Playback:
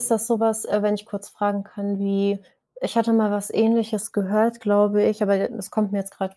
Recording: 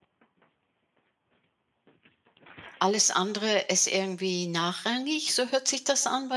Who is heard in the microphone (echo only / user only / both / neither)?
user only